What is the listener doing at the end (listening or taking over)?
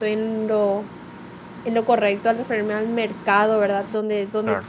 listening